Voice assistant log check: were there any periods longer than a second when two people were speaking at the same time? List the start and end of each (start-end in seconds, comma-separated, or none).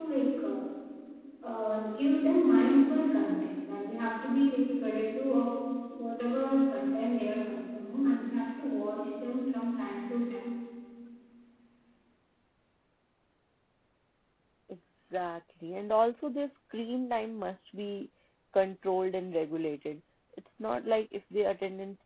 none